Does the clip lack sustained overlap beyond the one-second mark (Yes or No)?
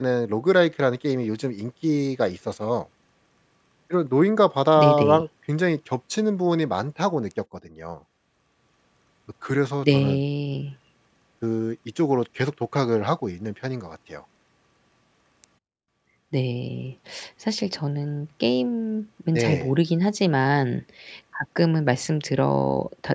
Yes